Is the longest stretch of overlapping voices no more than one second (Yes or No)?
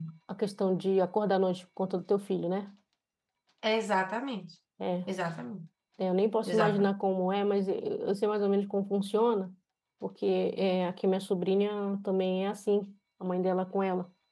Yes